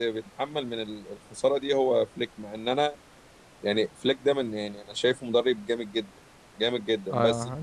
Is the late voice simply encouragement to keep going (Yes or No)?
No